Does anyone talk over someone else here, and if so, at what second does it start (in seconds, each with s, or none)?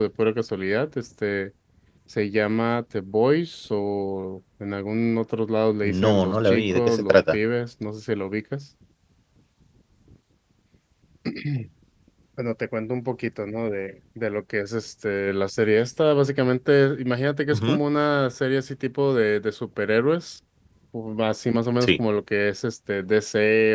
5.8 s